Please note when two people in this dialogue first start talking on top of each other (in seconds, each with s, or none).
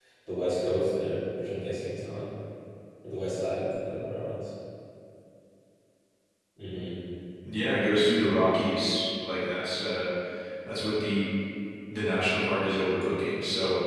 none